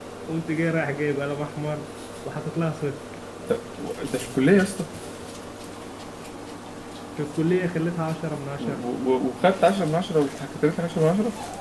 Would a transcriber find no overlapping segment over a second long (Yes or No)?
Yes